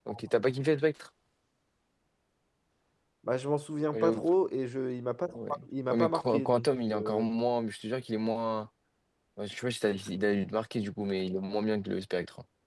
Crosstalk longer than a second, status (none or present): present